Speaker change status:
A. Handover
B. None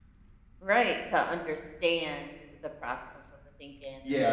A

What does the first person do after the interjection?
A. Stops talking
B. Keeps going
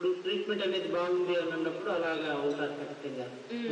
A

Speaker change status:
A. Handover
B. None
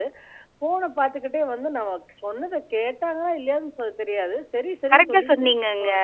A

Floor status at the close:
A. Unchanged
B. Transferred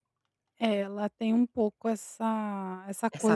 A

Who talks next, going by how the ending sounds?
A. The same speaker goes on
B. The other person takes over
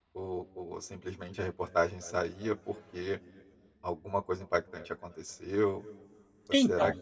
A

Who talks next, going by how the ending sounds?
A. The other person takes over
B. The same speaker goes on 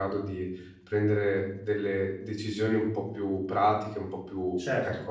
A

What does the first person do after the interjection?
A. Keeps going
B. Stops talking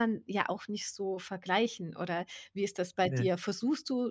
A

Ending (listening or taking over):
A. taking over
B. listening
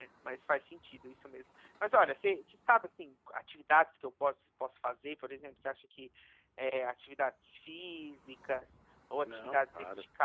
B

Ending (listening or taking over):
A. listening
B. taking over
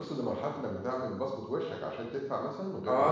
B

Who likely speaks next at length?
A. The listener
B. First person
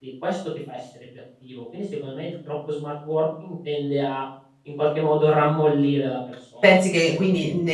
A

